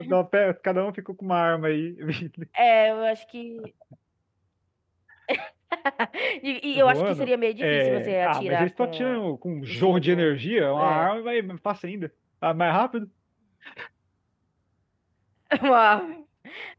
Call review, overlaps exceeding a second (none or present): present